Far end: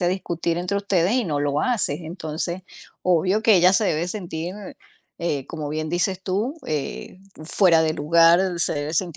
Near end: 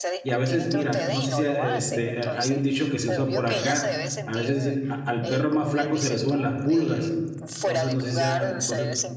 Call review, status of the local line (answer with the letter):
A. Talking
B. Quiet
A